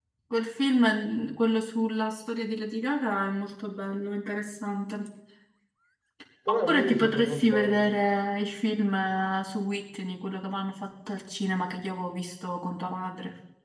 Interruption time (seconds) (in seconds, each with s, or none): 6.5 s